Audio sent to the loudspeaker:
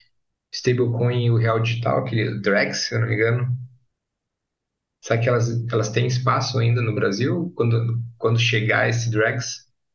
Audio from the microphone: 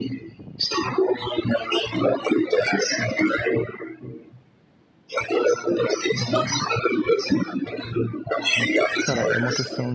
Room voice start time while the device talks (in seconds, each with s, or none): 9.0 s